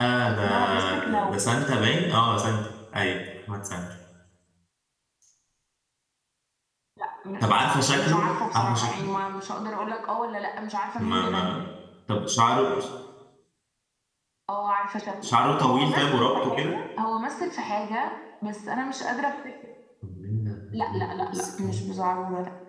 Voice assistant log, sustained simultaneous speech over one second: present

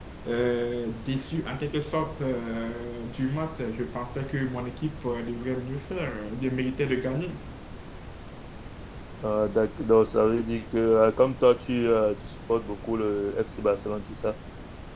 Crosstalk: none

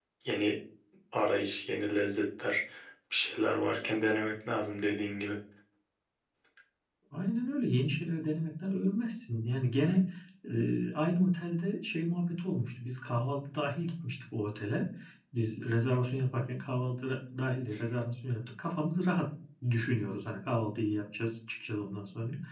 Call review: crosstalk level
none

